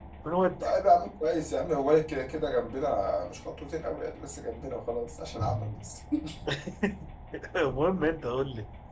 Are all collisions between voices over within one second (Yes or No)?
Yes